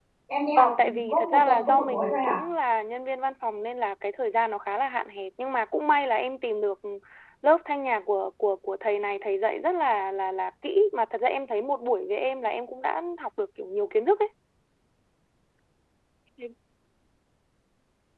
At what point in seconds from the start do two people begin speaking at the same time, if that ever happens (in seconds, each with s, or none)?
0.5 s